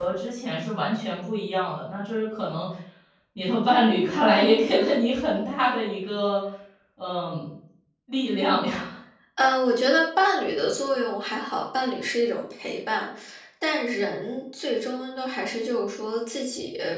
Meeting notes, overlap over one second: none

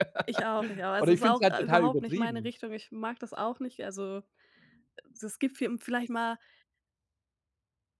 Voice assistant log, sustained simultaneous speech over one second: present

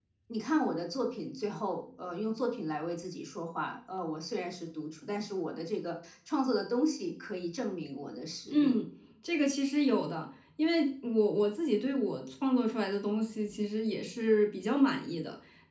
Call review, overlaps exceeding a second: none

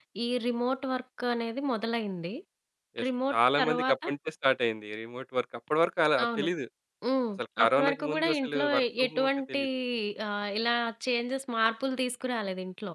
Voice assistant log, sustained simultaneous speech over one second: present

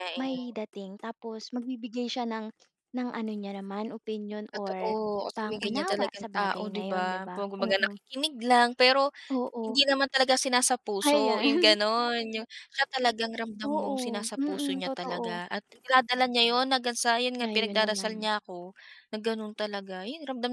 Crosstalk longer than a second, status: present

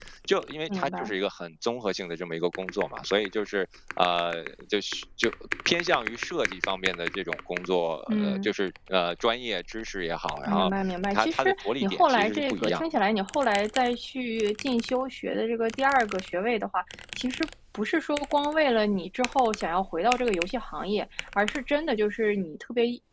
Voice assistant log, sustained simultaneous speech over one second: present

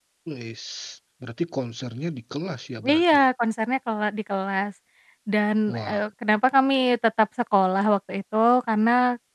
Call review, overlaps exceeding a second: none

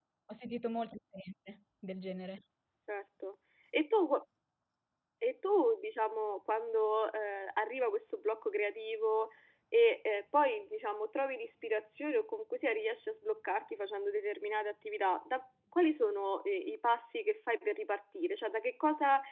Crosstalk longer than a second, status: none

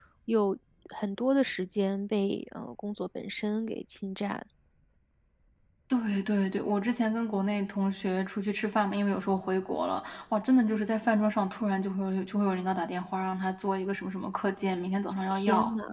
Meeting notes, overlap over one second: none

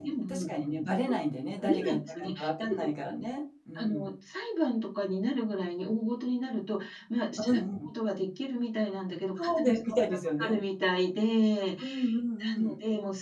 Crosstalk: present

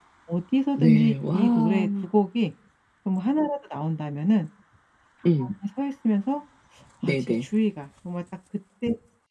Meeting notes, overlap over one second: present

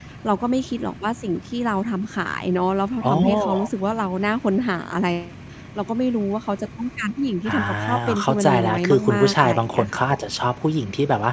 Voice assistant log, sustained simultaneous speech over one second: present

